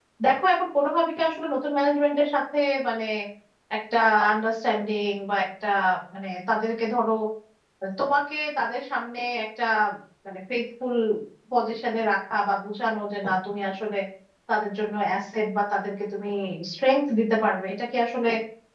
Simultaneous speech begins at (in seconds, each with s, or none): none